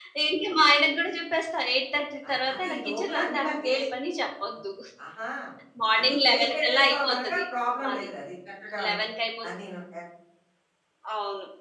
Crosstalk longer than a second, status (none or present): present